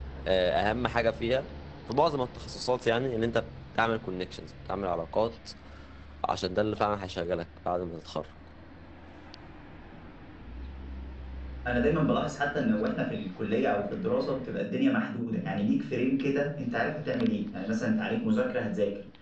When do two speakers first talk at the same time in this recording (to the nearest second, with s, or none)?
none